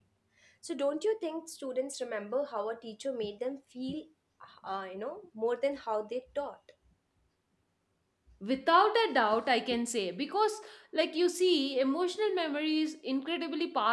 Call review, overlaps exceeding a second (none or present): none